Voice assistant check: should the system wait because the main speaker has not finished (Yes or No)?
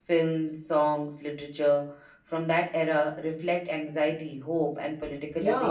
No